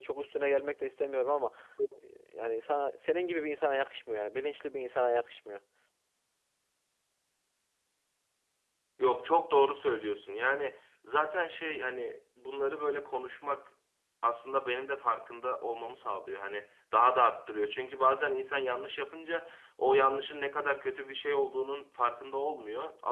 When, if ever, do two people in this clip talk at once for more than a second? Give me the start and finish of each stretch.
none

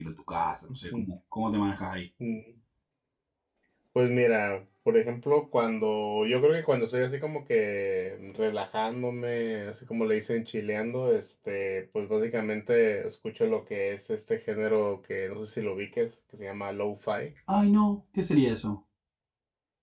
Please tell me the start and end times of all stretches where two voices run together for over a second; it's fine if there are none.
none

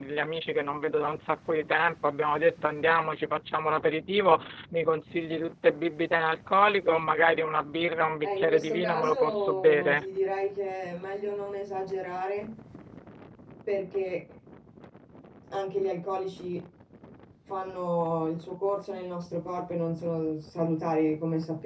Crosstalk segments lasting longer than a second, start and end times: 8.2-10.0

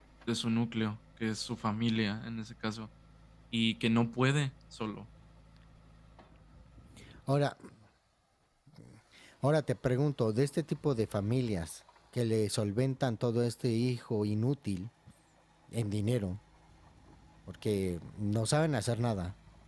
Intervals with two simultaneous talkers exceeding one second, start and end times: none

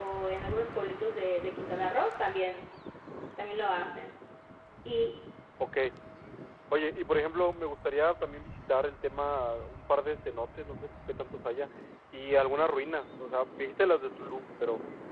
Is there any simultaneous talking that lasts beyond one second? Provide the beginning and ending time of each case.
none

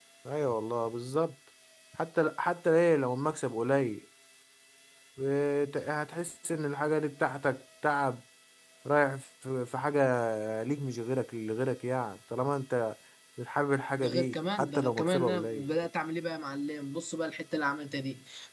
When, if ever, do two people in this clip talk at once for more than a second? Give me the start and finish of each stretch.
14.0-15.7

